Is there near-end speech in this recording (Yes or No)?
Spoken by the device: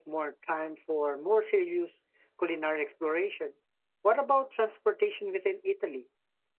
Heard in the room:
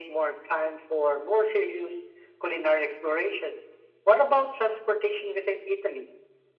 No